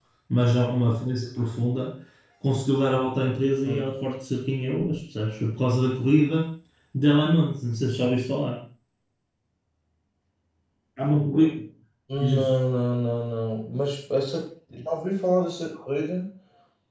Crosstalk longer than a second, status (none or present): none